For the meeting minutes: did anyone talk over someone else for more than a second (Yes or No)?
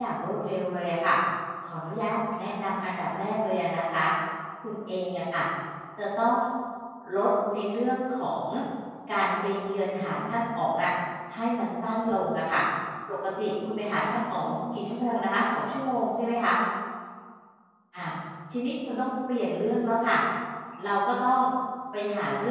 Yes